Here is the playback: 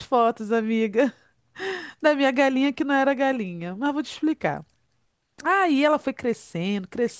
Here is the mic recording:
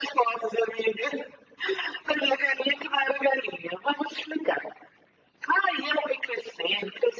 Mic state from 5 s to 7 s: echo only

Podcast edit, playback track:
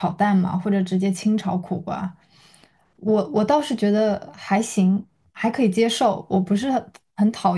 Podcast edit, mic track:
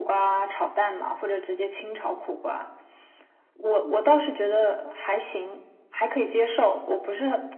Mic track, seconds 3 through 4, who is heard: echo only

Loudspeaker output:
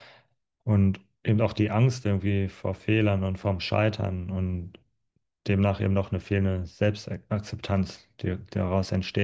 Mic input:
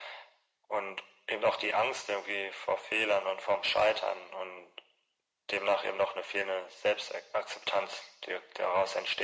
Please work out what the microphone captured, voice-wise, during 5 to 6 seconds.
echo only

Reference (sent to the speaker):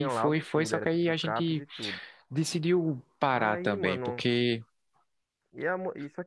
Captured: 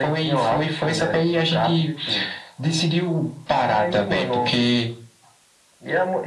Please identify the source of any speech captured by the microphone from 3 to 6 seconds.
echo only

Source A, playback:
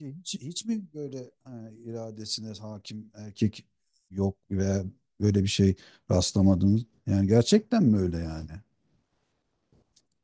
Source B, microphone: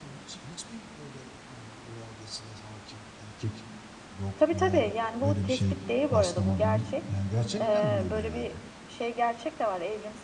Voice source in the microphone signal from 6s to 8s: both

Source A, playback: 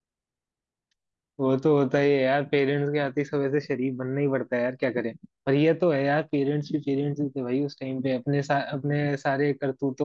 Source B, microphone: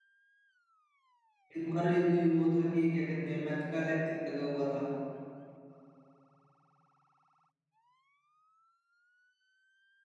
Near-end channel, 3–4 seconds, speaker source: user only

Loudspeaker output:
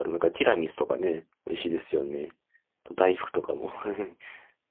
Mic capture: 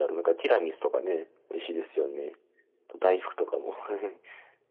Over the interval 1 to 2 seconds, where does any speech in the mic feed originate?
echo only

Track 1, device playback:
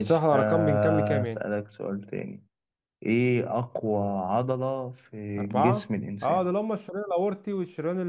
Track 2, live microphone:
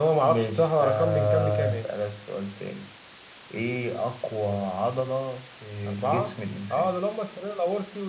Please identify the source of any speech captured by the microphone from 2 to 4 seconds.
echo only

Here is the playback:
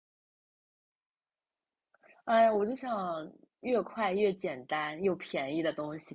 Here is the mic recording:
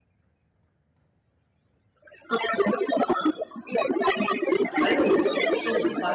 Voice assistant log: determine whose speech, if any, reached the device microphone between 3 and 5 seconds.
both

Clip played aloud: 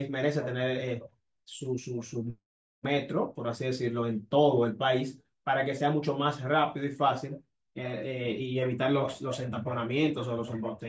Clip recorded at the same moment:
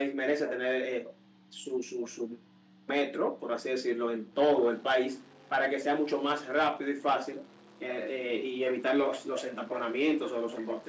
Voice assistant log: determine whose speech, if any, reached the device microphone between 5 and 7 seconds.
echo only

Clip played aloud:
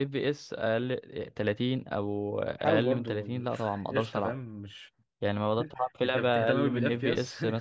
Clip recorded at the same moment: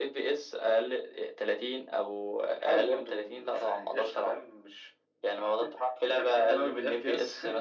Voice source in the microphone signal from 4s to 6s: echo only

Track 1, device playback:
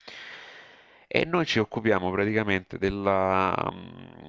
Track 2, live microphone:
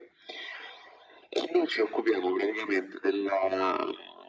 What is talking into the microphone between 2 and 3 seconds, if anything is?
echo only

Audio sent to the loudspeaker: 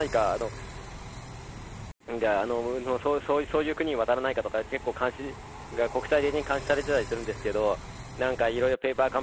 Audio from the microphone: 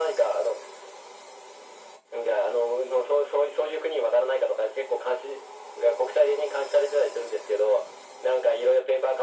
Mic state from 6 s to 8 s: echo only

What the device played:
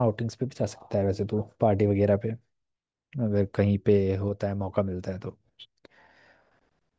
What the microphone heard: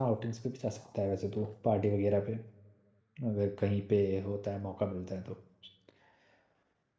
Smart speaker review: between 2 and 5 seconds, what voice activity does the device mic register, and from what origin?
echo only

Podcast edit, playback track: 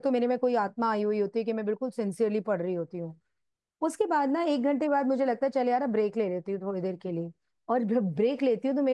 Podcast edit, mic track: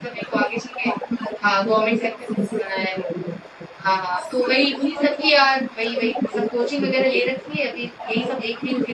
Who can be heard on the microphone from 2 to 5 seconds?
both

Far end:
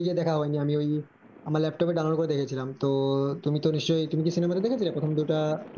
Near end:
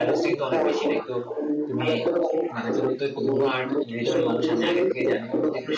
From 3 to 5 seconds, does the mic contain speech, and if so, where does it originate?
both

